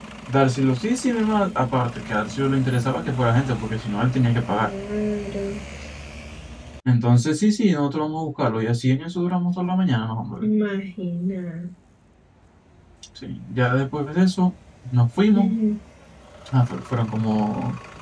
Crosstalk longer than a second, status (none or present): none